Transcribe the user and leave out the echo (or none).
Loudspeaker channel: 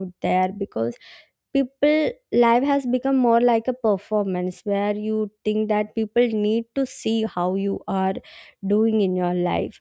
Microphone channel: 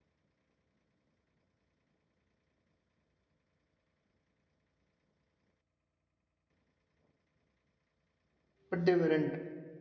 but they weren't